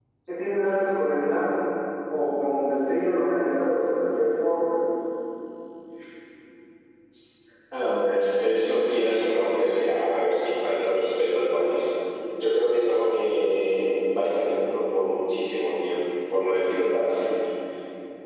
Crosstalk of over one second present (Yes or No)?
No